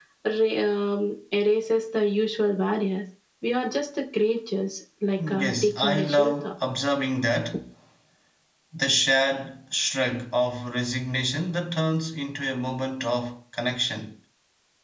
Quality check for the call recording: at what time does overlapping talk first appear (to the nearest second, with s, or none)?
5 s